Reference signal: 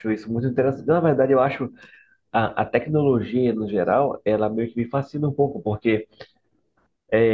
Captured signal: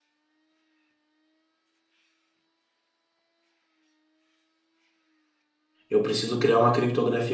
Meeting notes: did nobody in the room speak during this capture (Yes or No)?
No